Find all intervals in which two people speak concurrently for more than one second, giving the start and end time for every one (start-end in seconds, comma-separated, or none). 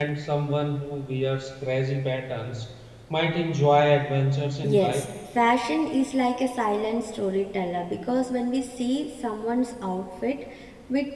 none